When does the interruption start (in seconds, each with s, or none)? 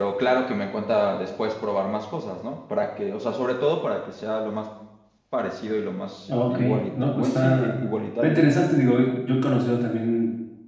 6.3 s